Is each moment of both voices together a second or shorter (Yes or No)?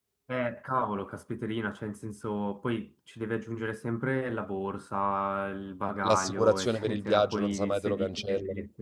No